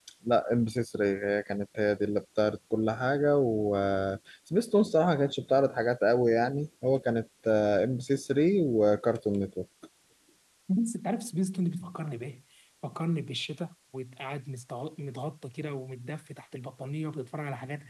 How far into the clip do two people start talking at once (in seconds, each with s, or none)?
none